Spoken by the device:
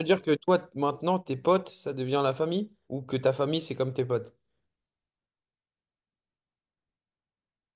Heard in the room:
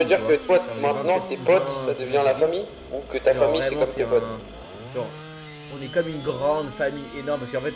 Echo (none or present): present